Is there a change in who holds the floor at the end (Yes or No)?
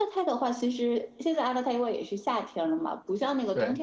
No